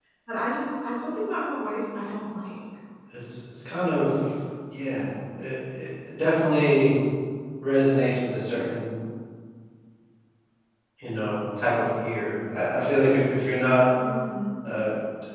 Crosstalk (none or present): none